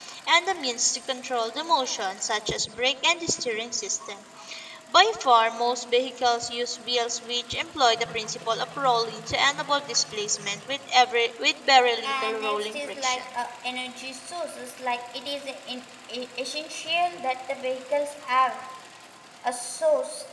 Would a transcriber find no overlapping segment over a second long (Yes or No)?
No